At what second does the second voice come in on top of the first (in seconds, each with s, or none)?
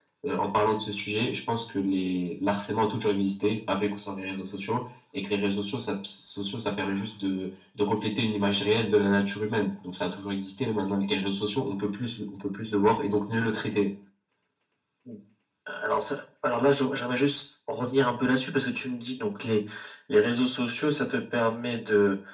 none